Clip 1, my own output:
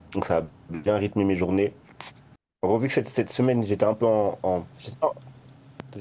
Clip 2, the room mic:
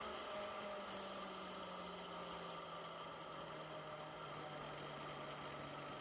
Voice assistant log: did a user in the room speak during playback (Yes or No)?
No